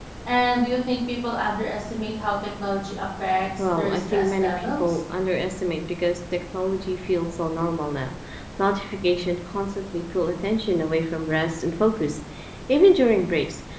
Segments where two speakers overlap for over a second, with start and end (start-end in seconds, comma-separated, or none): 3.7-5.0